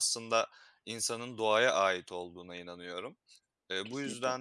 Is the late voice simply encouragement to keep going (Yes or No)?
Yes